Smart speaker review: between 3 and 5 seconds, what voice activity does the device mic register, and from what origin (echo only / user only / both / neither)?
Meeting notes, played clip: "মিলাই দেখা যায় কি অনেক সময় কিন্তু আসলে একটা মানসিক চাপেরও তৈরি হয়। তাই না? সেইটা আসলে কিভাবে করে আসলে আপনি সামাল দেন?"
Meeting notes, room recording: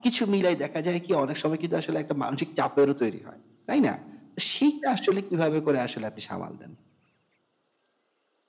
echo only